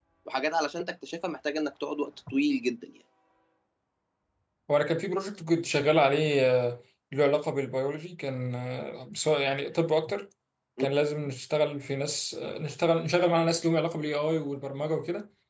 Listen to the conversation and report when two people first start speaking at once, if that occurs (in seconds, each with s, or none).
none